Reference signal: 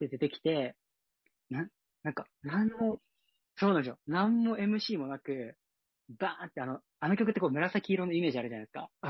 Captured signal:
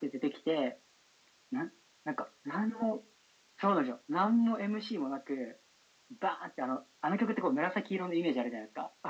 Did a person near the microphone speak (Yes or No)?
No